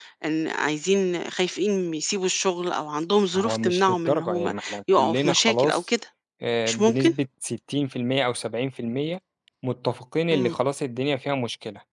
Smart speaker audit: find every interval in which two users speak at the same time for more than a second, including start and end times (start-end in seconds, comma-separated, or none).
3.4-5.8